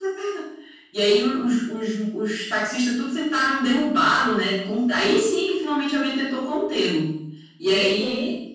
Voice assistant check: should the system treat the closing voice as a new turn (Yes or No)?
No